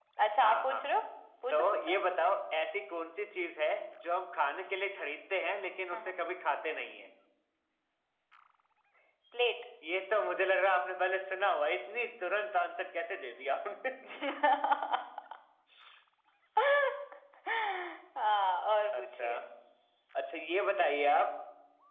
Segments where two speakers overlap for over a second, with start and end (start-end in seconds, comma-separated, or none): none